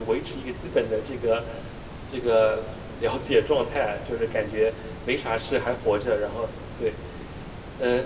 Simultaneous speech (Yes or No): No